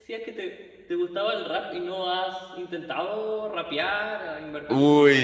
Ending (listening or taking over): taking over